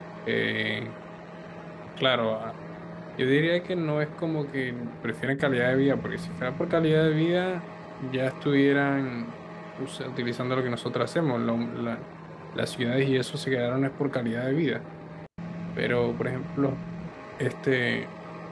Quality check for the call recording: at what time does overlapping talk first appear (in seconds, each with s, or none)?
none